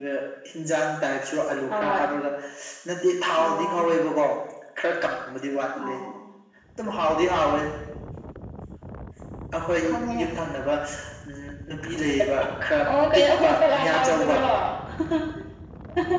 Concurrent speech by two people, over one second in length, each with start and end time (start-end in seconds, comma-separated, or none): 12.9-14.4